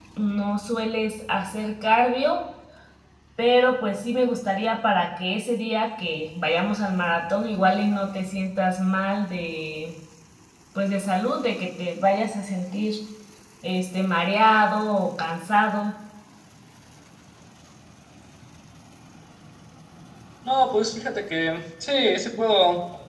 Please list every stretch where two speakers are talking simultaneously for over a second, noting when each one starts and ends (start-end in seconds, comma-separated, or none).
none